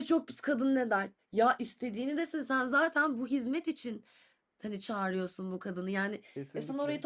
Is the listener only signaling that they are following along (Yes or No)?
Yes